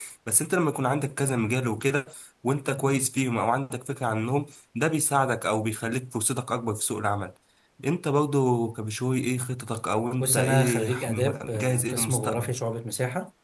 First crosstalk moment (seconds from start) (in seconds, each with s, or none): 10.2 s